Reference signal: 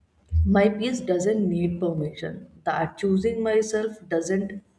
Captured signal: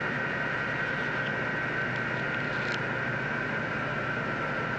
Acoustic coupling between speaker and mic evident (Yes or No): No